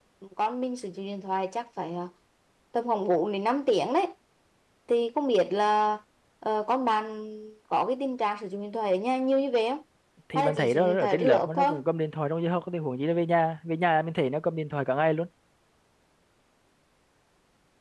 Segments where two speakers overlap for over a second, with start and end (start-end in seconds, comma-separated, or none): 10.3-11.8